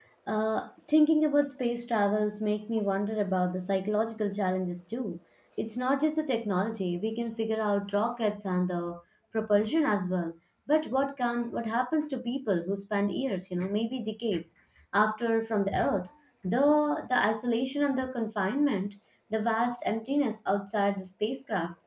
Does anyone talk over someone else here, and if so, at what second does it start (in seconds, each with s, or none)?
none